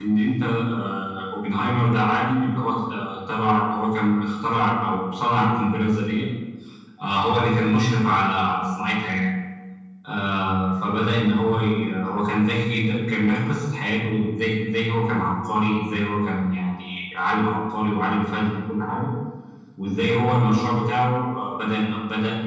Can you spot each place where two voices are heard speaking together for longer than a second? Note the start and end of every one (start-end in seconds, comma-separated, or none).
none